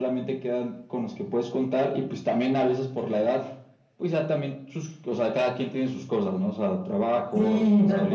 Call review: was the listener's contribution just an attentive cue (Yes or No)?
No